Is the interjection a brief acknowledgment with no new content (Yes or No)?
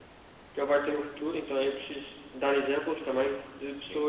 Yes